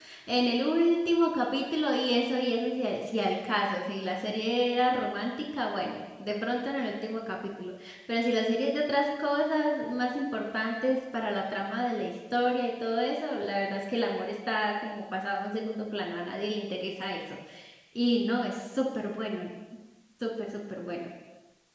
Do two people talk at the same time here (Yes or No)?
No